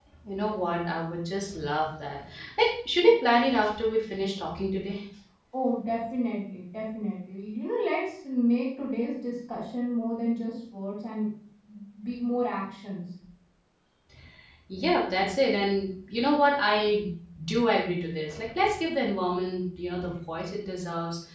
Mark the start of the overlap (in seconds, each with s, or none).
none